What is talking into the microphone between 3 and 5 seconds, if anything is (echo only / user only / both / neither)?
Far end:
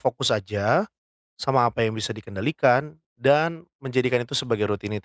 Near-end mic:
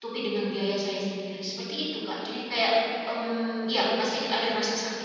user only